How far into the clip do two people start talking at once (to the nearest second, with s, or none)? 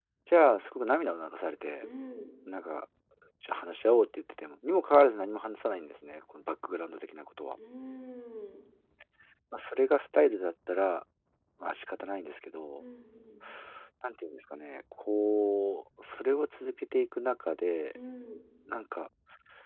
none